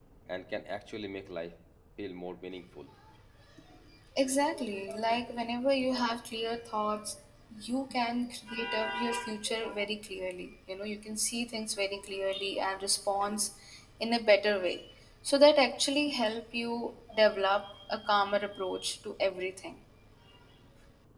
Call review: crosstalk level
none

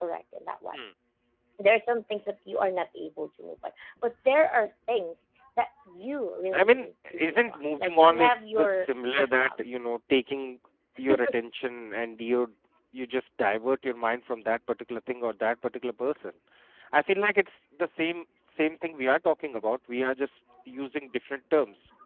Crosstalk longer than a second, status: present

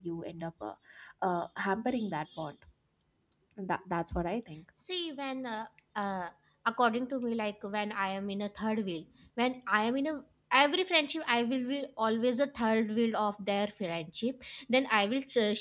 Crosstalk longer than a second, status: none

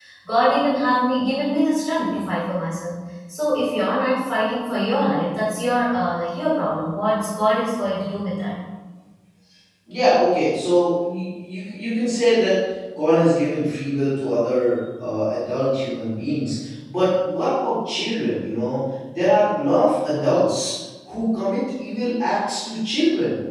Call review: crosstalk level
none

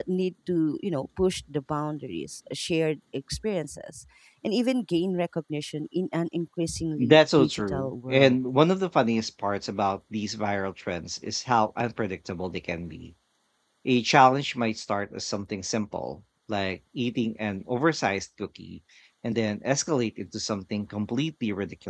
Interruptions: present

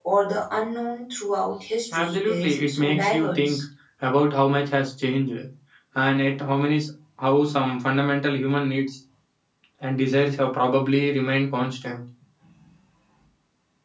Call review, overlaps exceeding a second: present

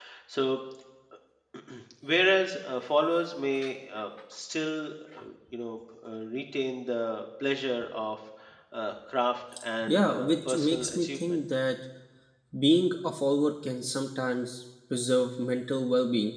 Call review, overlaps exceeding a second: present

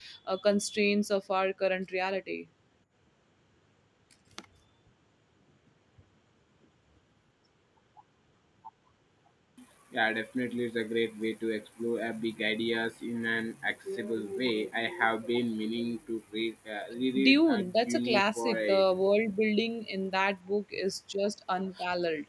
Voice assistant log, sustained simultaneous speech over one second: present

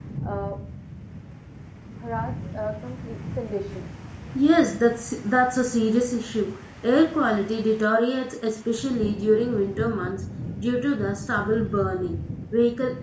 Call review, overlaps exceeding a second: none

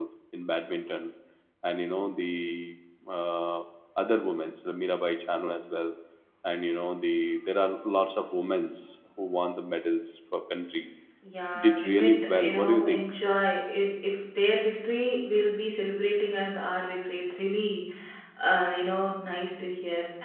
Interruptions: present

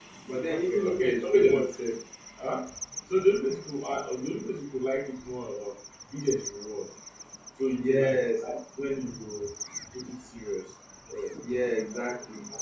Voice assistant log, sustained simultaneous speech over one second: present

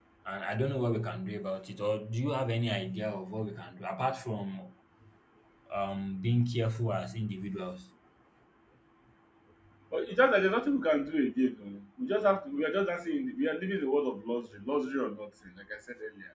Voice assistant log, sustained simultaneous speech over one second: none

